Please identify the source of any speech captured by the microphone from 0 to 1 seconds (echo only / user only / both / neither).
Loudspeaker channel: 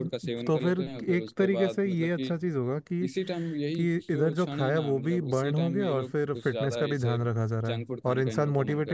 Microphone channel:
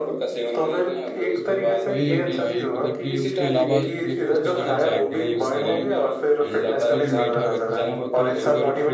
echo only